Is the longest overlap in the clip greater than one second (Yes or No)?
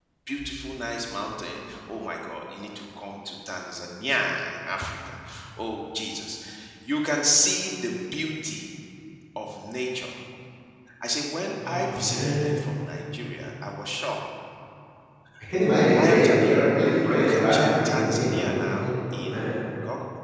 Yes